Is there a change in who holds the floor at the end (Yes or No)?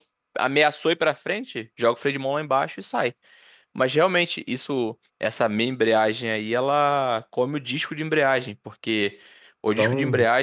No